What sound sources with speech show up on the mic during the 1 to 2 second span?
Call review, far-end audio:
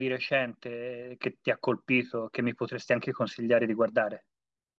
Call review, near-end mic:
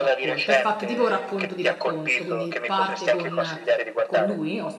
both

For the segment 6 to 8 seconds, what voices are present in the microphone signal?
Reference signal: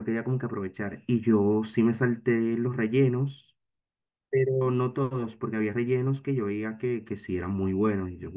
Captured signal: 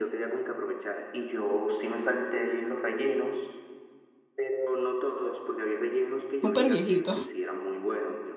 both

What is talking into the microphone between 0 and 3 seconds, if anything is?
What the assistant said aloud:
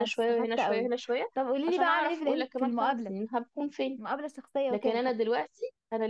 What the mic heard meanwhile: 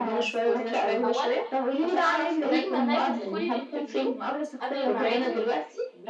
both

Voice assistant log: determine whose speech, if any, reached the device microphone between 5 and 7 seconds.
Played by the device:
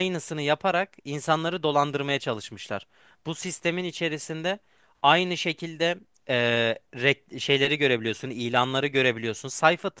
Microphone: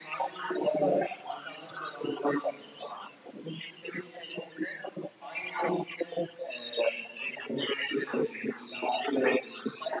echo only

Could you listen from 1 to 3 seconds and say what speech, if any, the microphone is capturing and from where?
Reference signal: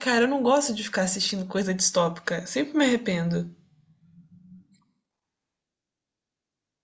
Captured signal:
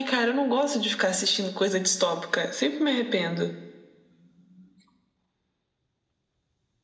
echo only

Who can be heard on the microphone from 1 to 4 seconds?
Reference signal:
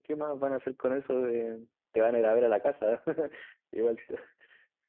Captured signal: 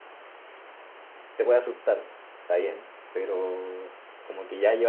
user only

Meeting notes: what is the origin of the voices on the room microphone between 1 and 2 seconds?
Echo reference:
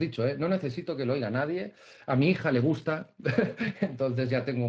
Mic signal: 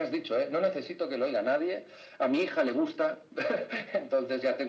echo only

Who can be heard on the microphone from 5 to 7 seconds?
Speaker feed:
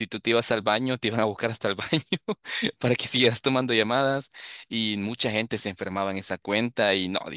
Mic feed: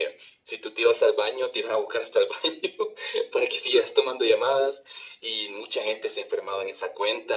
echo only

